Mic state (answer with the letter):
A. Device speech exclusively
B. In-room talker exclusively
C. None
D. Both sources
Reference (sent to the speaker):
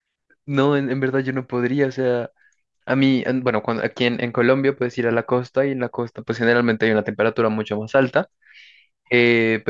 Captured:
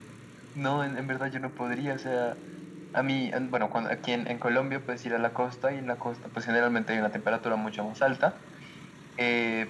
A